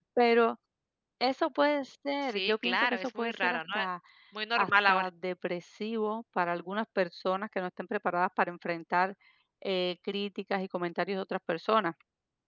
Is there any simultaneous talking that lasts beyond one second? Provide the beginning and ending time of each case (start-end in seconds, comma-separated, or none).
2.2-3.9